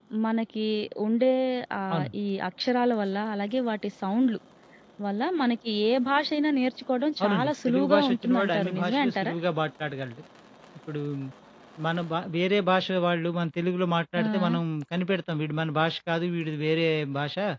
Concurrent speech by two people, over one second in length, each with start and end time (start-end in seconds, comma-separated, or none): 7.2-9.3